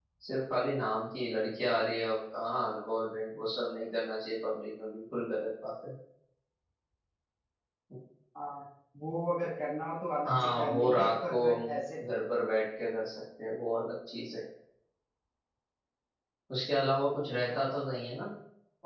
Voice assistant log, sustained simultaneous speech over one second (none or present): present